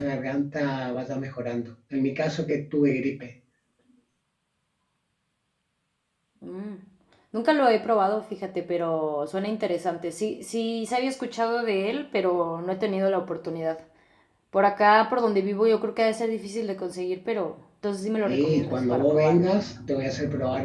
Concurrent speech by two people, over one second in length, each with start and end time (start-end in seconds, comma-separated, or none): 18.2-19.4